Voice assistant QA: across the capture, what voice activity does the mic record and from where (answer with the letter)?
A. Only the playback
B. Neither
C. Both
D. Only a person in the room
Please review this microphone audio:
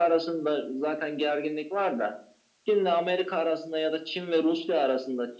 A